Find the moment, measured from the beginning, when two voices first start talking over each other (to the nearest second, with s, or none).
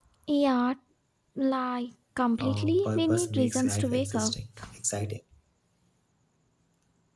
2 s